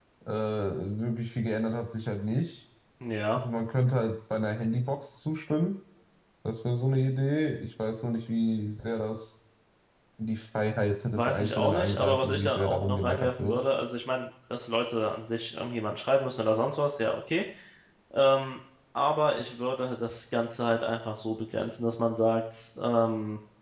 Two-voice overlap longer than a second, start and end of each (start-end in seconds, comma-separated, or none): 11.2-13.6